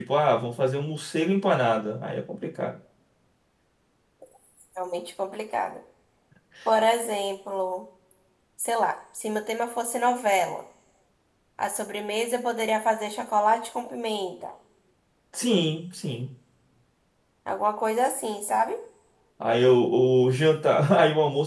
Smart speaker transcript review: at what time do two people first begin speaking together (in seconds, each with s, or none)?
none